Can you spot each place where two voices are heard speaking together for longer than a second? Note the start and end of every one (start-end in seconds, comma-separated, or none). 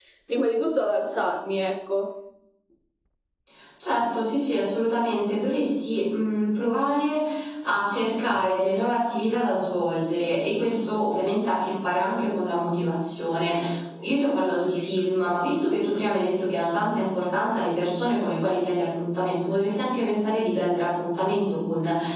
none